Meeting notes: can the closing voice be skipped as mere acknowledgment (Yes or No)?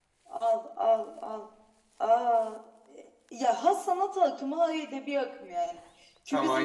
Yes